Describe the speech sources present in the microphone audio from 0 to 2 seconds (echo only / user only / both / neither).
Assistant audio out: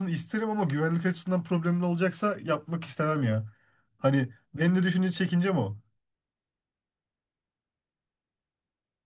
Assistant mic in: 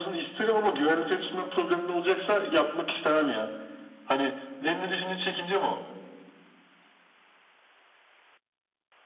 echo only